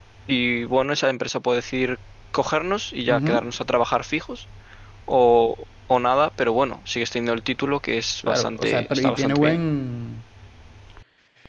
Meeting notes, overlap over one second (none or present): present